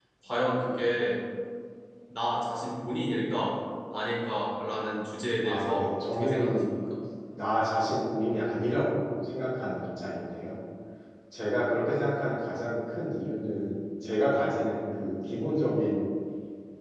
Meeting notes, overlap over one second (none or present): present